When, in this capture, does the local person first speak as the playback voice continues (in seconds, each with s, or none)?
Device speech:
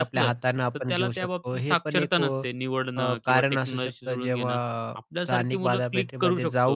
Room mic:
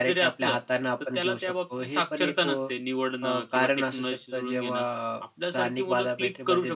none